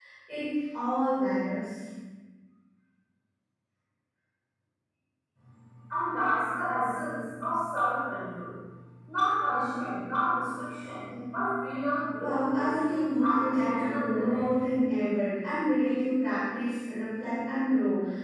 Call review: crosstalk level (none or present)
present